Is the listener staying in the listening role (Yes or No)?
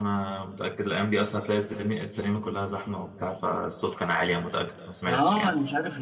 No